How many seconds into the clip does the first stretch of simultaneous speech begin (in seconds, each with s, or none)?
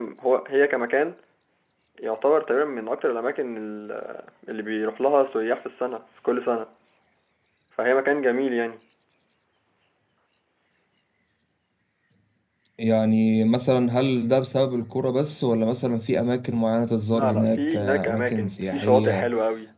17.1 s